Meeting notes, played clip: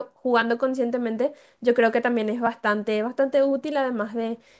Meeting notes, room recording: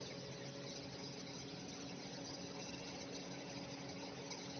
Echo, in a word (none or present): none